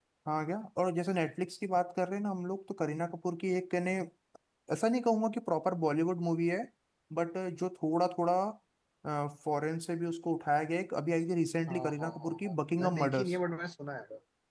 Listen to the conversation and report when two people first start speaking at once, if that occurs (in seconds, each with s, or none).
11.7 s